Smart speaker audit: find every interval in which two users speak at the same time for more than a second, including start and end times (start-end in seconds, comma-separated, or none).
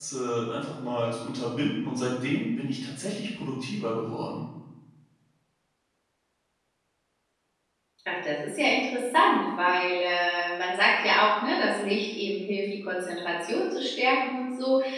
none